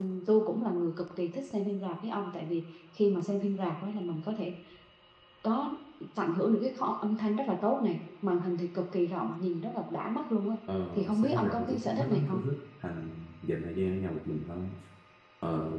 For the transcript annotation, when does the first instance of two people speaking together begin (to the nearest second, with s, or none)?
11 s